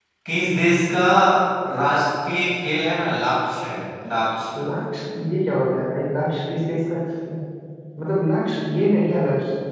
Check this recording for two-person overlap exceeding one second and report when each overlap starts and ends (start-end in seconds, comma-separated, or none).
none